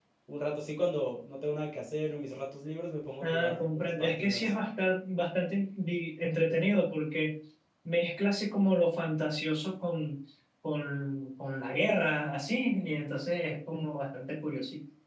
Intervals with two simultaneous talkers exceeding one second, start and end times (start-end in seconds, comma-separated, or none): 3.2-4.5